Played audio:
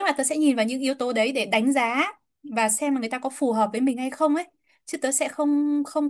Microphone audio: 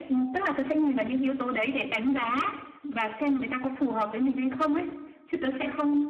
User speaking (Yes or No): No